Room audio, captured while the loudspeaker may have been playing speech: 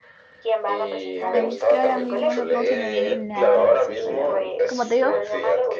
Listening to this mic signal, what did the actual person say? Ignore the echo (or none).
Ay, es que ahora mismo no, no se me viene nada gracioso, la verdad. Como te digo,